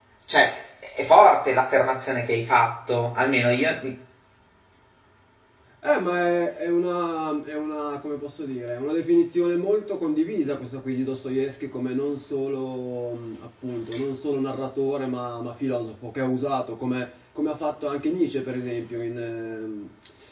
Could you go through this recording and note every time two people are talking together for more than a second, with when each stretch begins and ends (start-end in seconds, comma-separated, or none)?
none